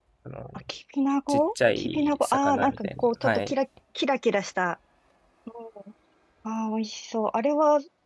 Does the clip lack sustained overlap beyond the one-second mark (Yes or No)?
No